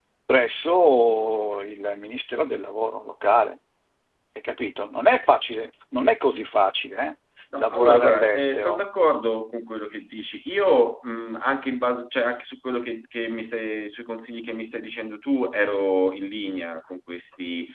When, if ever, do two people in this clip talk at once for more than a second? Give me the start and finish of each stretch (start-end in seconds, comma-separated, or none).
7.6-8.8